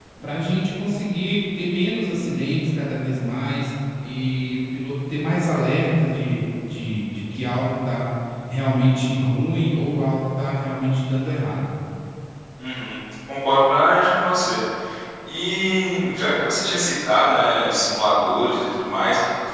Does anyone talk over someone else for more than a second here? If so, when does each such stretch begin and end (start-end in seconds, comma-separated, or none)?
none